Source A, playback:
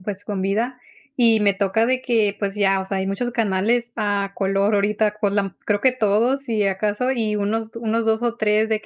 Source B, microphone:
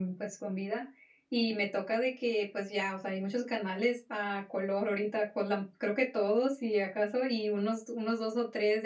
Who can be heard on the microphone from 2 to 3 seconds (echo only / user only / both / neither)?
echo only